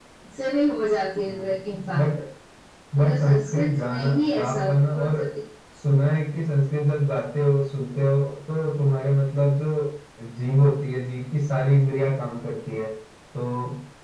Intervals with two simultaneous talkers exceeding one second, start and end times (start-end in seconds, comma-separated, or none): 3.0-5.0